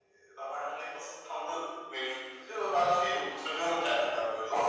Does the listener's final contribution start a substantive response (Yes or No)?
Yes